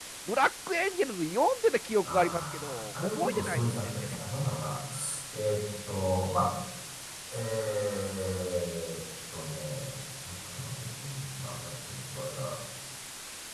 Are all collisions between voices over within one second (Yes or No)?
No